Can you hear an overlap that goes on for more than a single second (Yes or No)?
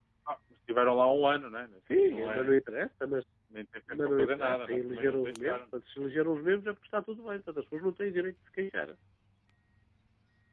Yes